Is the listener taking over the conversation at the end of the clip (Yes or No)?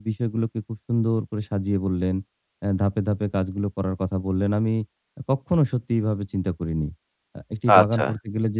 No